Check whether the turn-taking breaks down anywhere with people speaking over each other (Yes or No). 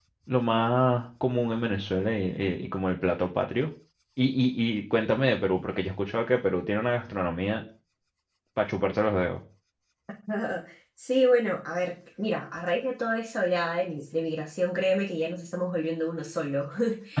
No